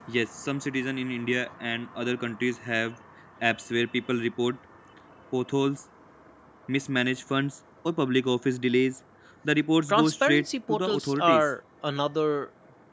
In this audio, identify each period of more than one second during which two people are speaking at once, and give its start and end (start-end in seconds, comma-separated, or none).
9.9-11.5